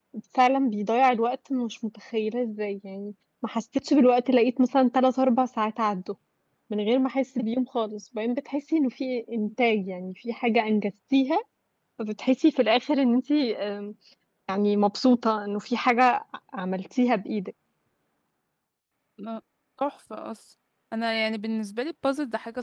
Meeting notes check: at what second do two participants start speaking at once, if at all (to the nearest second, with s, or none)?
none